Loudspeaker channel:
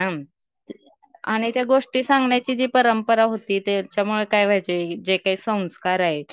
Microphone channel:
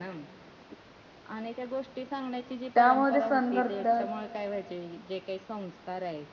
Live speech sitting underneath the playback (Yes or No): No